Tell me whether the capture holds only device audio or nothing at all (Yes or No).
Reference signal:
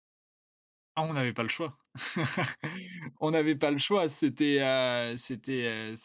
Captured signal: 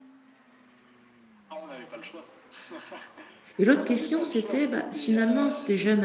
No